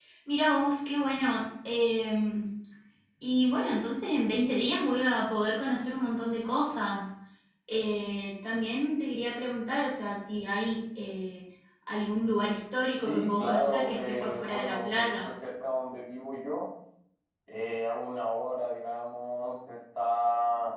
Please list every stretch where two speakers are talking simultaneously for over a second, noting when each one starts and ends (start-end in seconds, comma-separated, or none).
13.0-15.3